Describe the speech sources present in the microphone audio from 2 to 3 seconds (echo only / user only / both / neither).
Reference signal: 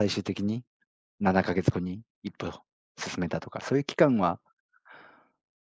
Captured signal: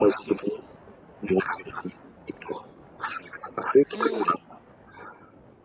echo only